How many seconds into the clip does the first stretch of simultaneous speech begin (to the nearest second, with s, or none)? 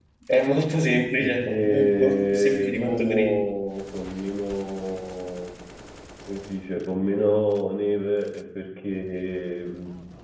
1 s